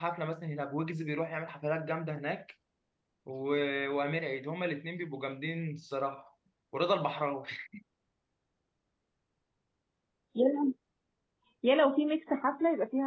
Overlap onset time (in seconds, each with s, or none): none